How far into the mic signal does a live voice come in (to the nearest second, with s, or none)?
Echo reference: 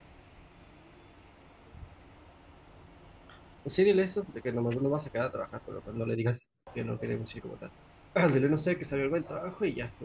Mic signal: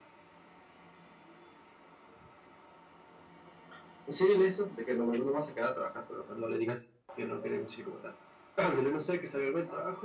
none